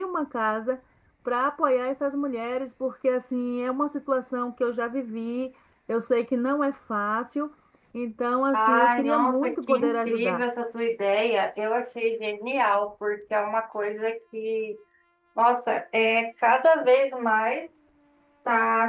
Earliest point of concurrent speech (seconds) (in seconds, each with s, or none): 8.5 s